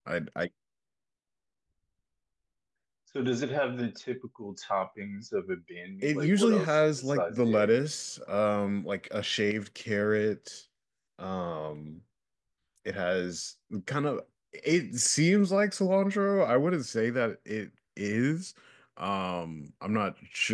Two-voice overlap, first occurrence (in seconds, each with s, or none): 6.0 s